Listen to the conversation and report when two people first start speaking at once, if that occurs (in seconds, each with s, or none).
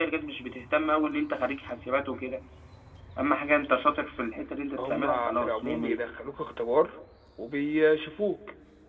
4.8 s